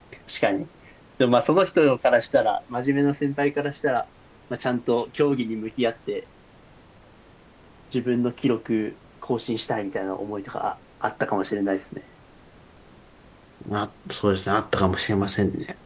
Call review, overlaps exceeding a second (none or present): none